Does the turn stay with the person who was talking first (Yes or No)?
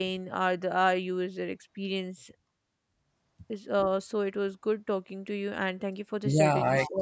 No